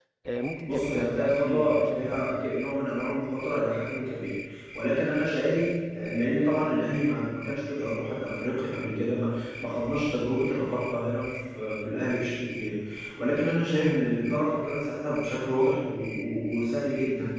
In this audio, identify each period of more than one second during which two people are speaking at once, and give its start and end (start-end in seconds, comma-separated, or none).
0.7-2.4